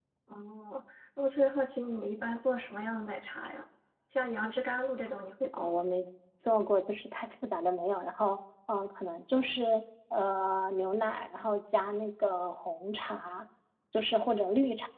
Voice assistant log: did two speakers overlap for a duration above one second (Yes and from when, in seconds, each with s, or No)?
No